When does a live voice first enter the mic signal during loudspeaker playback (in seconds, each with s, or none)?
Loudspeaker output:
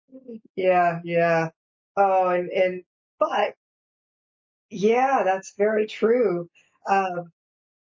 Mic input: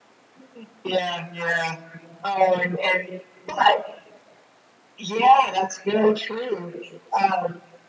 none